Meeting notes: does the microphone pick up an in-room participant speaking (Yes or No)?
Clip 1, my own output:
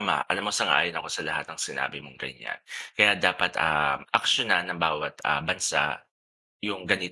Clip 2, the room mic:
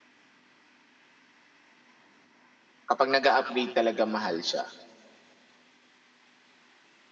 Yes